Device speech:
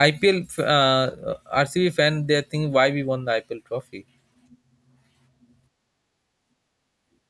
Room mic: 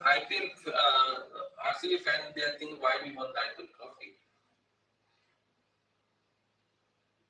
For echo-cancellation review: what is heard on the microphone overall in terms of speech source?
echo only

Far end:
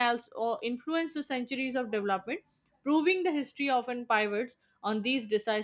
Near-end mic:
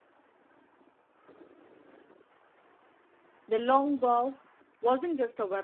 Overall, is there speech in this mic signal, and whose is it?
user only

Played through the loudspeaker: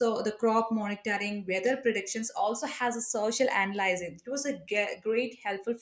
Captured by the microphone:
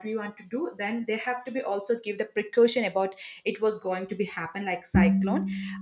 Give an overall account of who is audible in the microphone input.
user only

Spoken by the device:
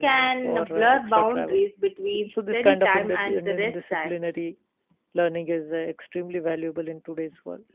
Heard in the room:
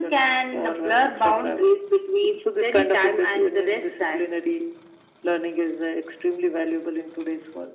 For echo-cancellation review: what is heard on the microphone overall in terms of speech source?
echo only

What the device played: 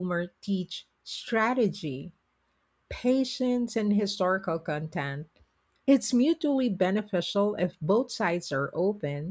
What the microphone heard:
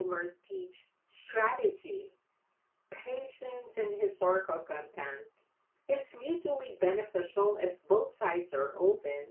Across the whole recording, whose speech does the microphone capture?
echo only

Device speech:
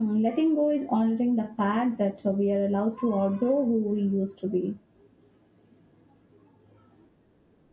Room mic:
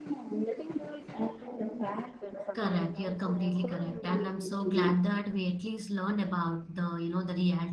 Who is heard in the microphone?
both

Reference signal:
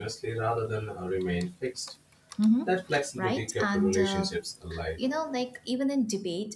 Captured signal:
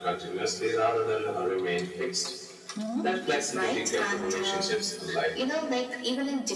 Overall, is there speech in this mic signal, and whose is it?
echo only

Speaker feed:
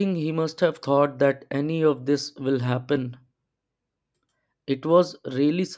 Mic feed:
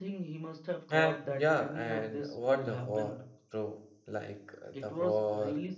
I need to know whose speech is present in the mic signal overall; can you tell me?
both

